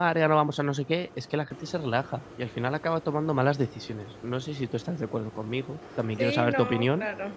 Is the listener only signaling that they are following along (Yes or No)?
No